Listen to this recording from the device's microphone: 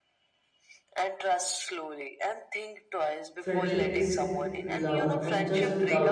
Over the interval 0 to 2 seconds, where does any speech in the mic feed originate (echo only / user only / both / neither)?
echo only